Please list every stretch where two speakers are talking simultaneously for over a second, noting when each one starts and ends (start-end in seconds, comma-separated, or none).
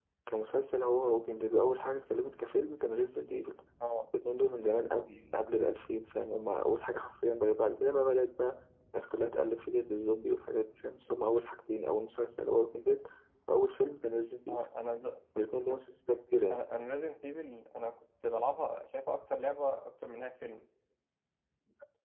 none